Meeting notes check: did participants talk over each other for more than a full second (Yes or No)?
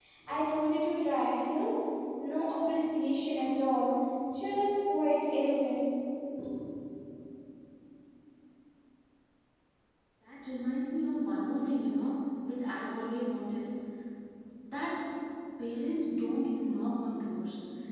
No